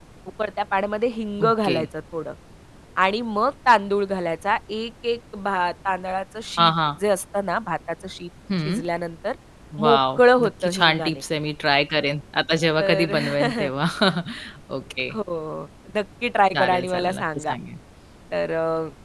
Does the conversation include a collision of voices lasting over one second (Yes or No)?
Yes